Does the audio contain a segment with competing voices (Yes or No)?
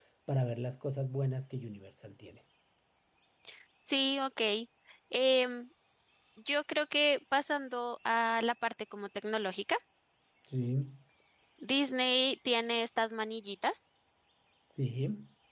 No